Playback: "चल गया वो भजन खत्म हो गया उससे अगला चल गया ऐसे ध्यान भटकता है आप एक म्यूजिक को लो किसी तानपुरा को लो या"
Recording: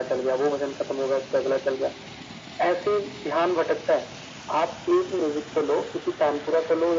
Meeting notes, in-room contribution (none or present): none